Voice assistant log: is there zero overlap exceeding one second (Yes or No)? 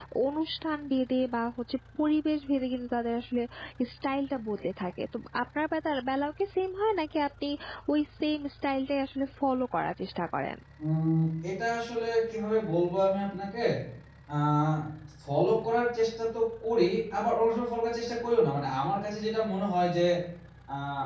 Yes